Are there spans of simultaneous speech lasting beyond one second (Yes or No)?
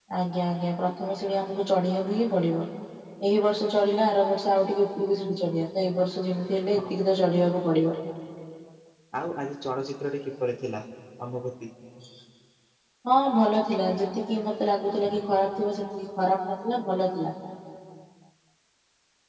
No